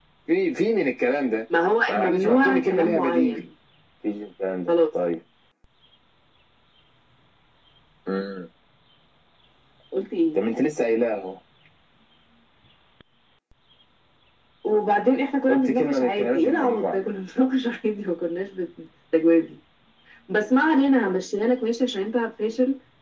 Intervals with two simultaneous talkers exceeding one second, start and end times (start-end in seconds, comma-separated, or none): 1.9-3.4, 15.5-17.0